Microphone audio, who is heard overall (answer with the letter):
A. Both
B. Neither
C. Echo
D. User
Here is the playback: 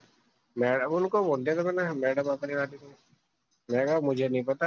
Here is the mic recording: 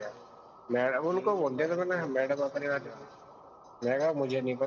A